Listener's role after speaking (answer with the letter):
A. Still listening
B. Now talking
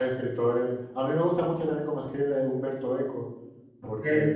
A